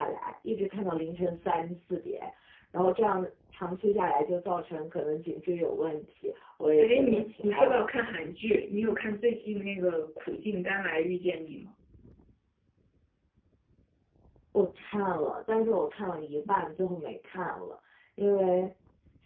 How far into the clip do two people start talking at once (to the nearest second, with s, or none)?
7 s